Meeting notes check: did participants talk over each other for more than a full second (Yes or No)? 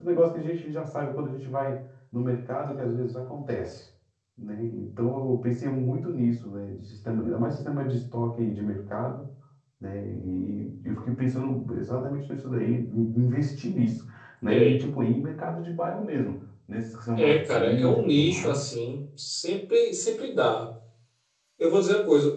Yes